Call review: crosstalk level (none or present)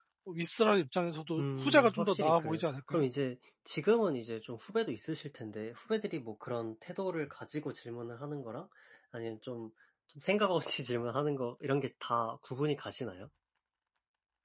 present